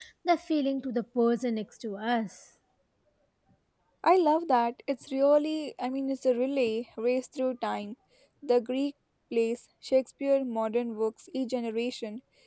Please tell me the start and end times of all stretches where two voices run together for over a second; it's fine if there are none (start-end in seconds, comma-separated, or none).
none